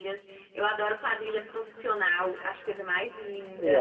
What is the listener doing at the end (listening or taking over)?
taking over